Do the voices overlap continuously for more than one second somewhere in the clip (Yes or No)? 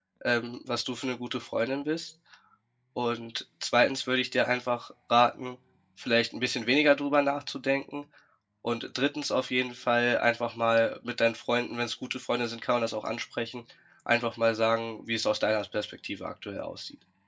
No